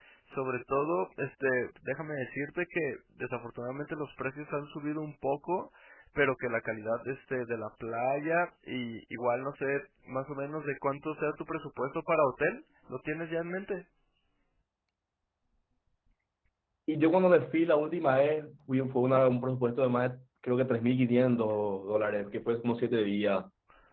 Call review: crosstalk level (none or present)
none